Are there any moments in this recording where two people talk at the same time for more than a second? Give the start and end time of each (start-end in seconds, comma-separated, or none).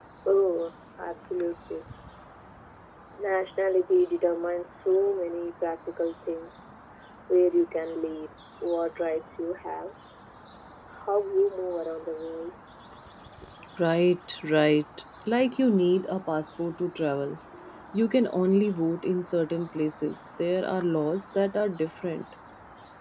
none